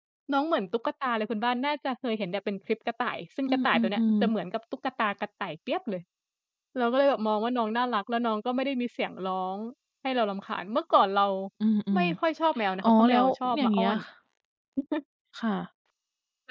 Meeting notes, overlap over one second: present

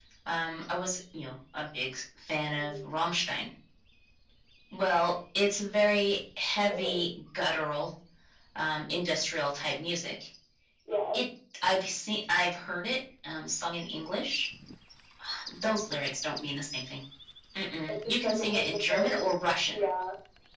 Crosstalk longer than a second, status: present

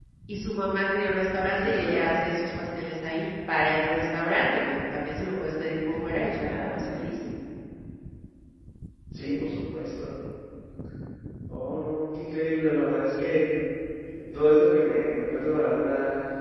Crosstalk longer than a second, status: none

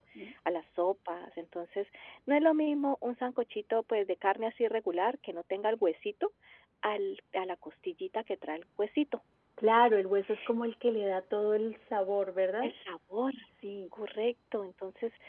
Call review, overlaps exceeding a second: none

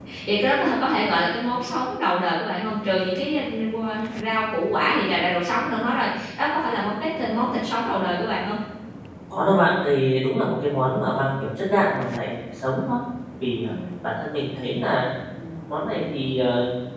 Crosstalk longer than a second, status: none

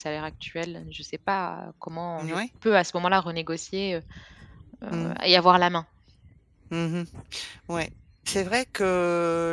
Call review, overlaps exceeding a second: none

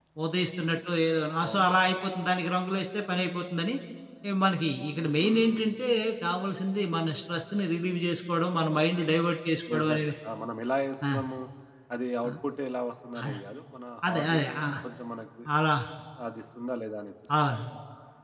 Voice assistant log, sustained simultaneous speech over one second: none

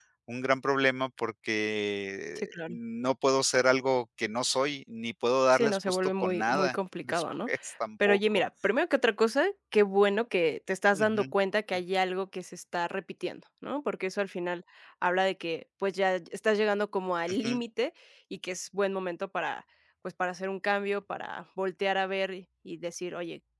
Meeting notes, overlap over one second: present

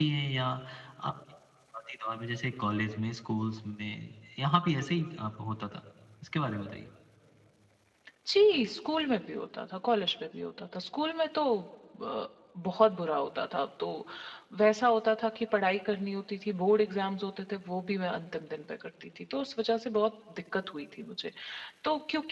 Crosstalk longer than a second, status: none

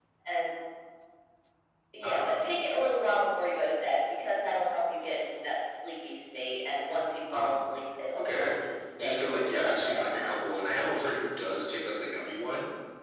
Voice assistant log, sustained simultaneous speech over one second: present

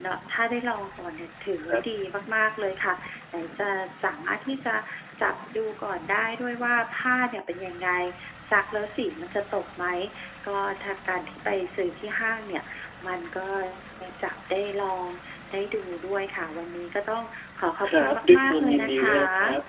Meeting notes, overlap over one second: present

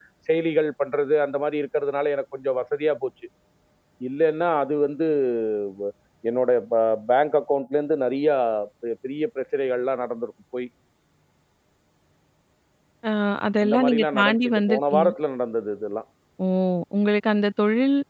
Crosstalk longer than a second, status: present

